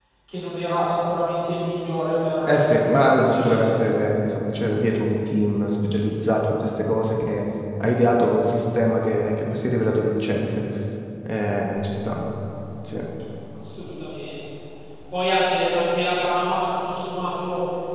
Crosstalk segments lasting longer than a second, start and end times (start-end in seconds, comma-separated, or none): 2.5-3.7